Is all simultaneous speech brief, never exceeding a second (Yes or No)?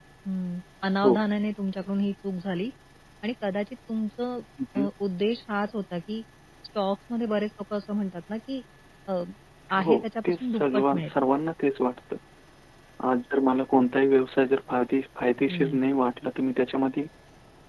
No